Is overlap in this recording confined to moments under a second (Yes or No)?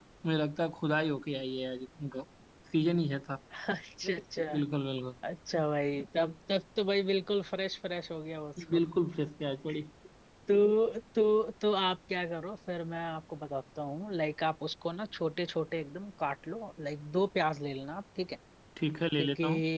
Yes